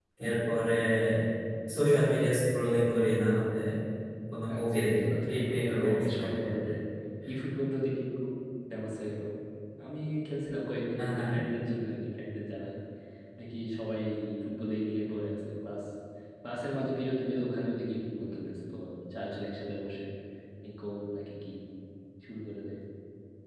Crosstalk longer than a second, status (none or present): present